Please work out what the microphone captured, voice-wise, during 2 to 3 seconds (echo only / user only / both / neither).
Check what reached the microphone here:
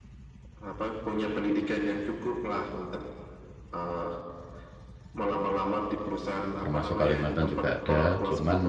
echo only